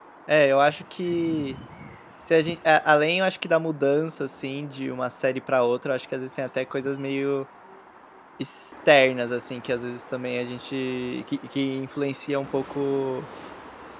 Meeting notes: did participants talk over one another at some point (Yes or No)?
No